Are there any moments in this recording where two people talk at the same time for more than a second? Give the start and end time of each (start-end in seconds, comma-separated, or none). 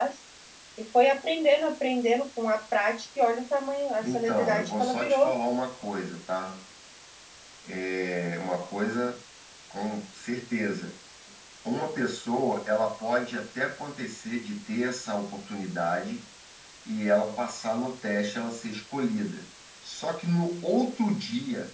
4.0-5.3